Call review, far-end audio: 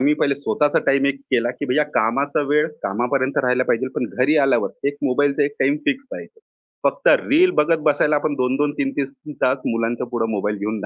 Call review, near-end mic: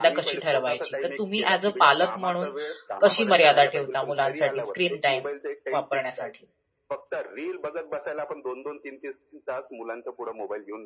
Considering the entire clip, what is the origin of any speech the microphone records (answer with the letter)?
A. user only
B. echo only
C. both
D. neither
C